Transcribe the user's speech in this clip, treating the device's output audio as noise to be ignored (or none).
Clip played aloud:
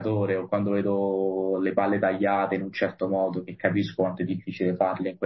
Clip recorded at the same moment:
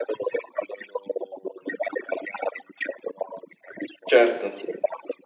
certo.